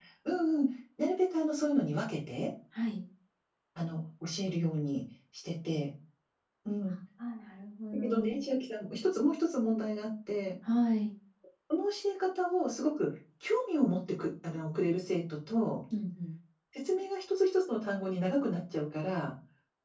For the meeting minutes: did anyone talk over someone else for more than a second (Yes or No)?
No